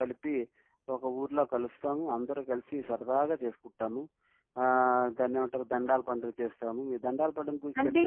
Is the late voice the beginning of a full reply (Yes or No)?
No